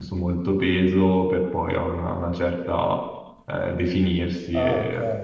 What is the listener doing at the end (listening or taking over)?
taking over